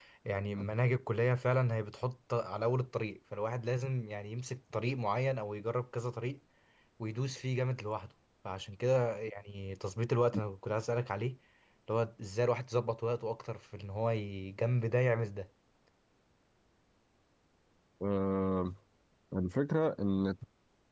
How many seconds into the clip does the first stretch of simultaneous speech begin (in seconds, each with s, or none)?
none